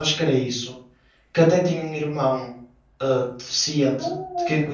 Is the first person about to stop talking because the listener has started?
Yes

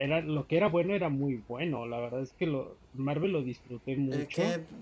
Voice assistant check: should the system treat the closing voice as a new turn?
Yes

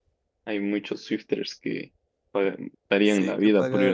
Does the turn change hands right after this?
Yes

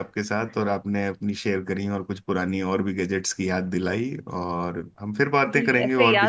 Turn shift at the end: Yes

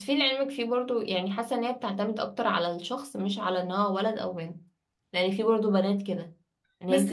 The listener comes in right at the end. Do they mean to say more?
Yes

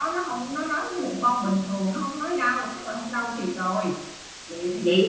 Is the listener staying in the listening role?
No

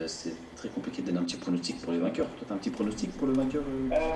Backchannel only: No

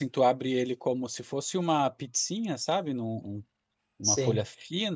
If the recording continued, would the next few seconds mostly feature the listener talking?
No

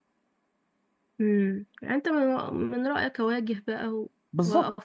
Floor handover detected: Yes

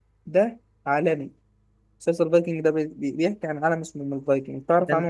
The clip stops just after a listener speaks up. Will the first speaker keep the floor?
No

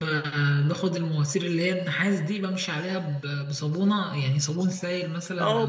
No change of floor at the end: No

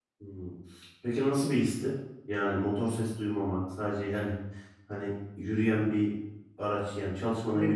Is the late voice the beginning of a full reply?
Yes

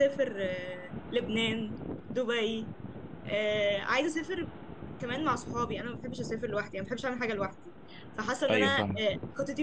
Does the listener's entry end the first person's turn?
No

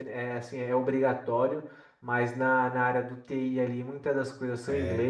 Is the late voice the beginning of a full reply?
No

